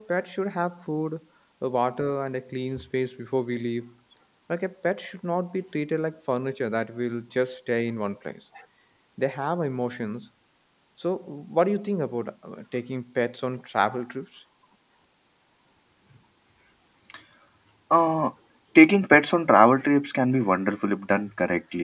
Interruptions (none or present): none